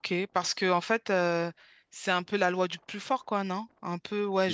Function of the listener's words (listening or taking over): listening